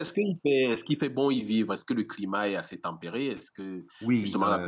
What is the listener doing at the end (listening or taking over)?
taking over